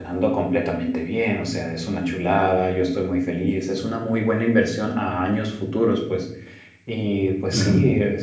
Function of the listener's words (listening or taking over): listening